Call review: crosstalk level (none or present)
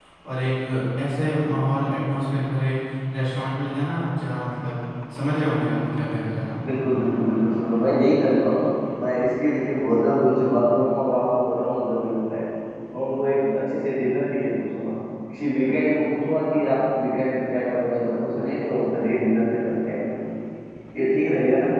none